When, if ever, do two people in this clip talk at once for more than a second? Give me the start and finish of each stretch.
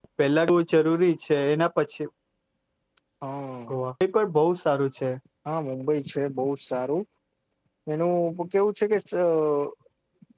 none

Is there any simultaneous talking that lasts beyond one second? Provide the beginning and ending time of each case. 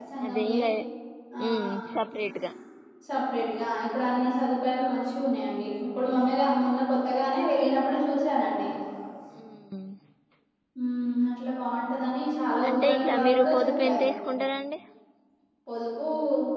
12.7-14.1

